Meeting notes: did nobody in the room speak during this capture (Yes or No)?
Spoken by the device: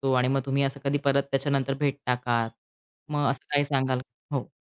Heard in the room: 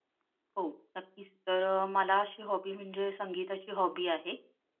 No